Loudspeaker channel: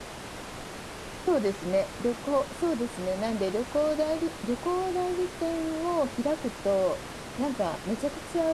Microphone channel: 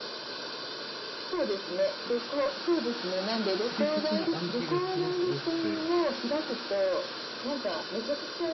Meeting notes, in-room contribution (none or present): present